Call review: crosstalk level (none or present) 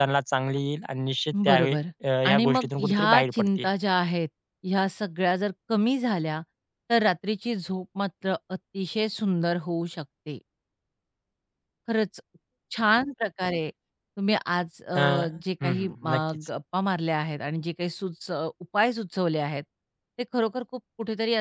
present